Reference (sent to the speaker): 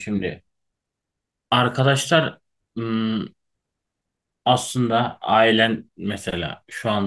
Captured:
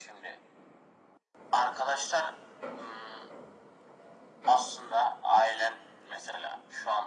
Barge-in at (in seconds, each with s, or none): none